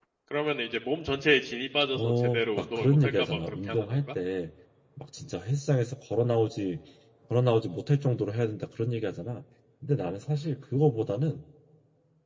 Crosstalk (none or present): present